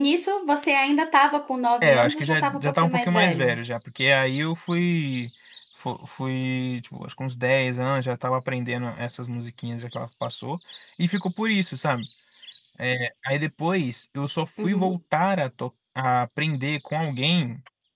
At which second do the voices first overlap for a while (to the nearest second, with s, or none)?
2 s